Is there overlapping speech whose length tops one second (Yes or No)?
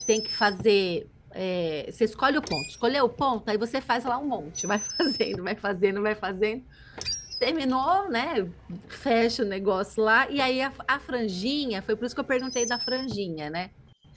No